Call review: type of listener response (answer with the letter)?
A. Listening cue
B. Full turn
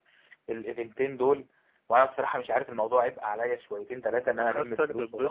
B